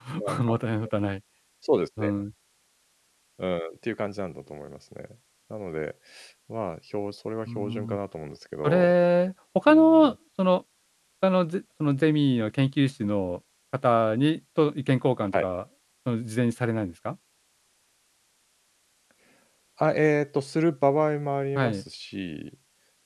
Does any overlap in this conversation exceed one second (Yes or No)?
No